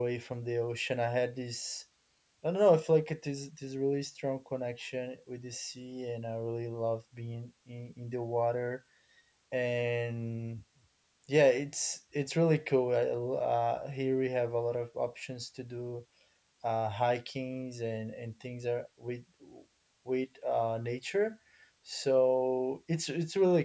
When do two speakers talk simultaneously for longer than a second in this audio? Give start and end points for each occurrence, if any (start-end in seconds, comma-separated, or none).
none